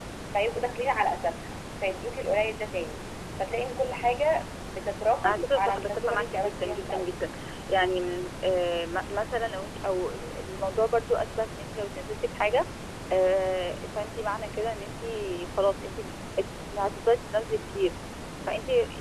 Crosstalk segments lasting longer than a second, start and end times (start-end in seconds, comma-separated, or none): 5.2-7.0